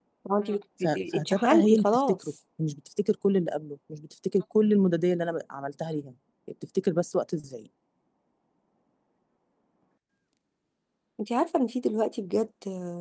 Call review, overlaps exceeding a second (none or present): present